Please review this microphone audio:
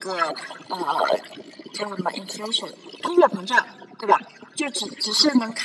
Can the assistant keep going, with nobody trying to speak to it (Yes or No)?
Yes